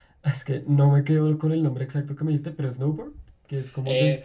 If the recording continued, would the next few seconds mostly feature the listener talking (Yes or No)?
Yes